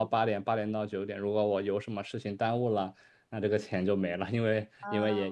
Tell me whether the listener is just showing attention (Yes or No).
Yes